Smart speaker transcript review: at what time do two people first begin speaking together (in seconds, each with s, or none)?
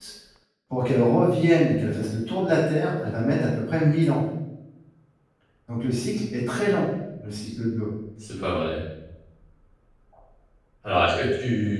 none